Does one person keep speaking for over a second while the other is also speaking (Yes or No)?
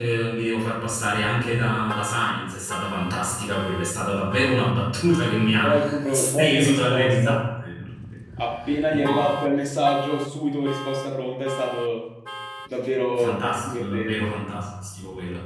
Yes